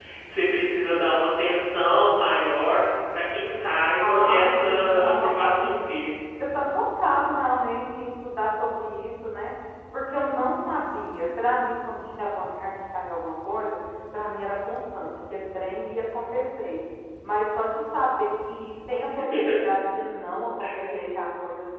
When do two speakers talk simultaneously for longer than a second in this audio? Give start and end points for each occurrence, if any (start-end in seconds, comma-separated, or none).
4.0-5.9